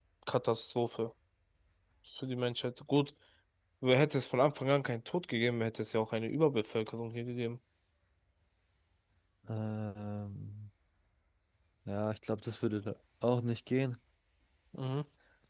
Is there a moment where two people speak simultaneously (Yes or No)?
No